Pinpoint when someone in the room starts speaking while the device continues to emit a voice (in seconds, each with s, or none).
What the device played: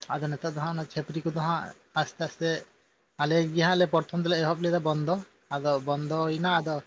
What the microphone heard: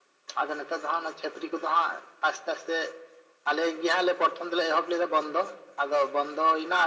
none